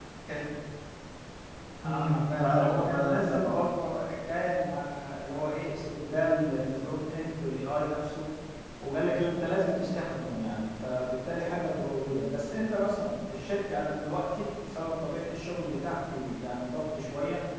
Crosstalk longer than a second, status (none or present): present